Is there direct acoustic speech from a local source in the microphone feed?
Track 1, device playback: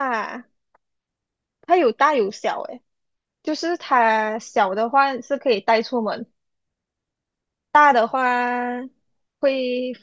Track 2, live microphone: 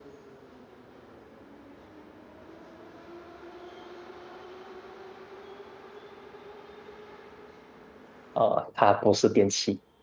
Yes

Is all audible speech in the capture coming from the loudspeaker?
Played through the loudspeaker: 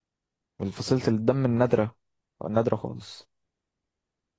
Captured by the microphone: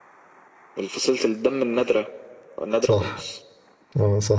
No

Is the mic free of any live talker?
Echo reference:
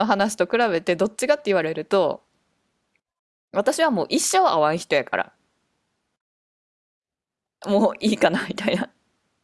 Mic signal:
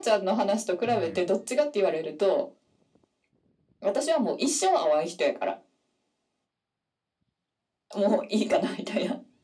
No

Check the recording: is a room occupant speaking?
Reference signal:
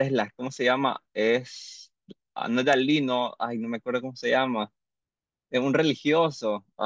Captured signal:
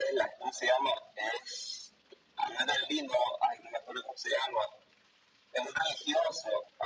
No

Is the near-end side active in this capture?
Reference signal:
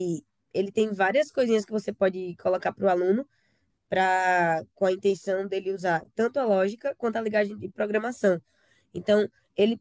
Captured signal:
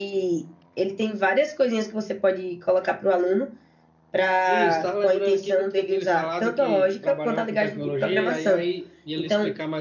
Yes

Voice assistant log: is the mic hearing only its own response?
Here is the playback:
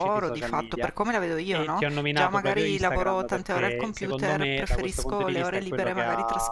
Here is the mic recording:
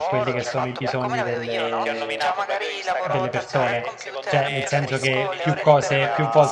No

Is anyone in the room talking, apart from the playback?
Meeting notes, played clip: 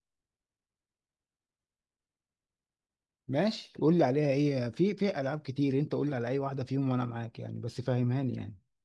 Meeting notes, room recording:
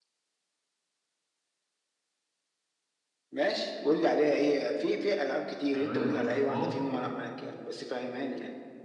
Yes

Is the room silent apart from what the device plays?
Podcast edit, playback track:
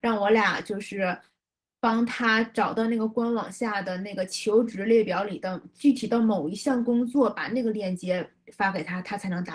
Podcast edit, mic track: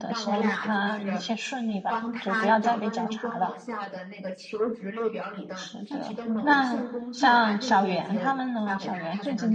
No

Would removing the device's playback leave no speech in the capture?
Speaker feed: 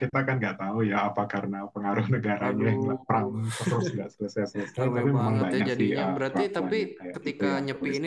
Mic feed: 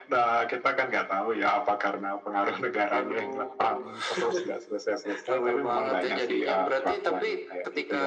Yes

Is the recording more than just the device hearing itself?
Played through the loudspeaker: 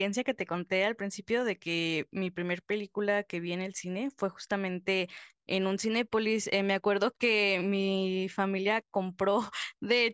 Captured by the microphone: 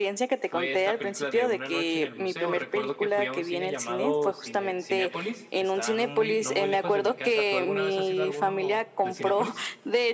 Yes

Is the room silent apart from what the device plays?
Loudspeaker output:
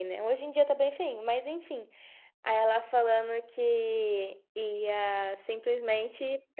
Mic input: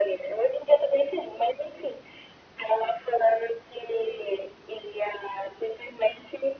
Yes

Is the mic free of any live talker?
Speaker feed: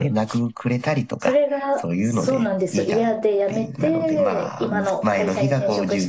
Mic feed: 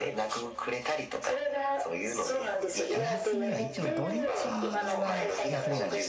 No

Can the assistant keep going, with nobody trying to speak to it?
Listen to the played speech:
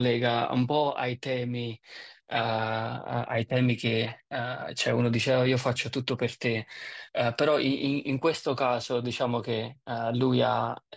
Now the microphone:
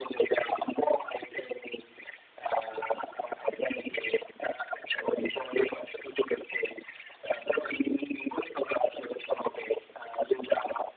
Yes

